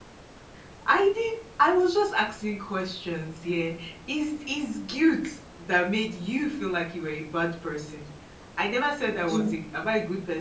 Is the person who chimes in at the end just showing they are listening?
Yes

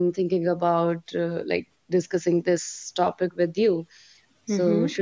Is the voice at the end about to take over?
Yes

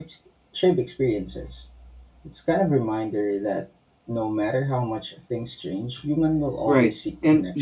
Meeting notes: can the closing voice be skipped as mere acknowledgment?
No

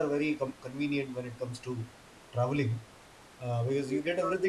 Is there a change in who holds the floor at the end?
No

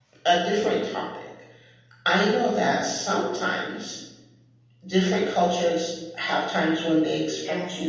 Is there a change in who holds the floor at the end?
No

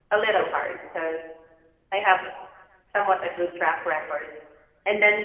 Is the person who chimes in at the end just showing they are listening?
Yes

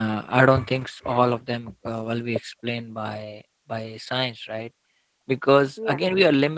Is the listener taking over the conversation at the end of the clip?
No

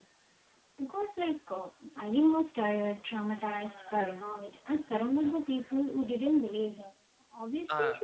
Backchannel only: Yes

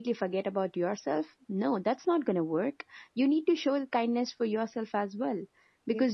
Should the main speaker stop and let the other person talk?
No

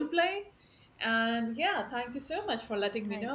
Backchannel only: Yes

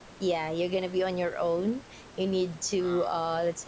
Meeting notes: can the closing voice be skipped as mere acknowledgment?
Yes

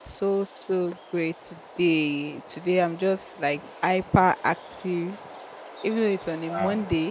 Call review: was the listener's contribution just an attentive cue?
Yes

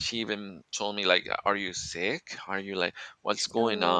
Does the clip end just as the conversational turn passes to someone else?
No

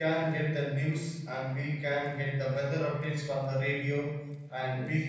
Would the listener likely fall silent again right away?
Yes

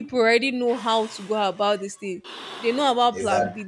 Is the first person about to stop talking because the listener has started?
No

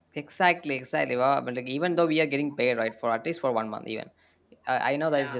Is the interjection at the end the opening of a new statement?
No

